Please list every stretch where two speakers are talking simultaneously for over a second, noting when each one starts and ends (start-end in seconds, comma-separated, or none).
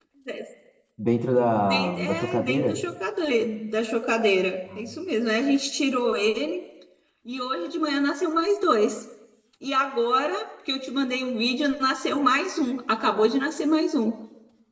1.6-2.8